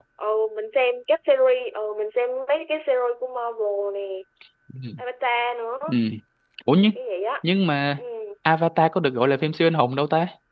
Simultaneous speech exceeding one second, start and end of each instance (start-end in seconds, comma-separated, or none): none